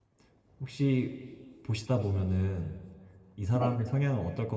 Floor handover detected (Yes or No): No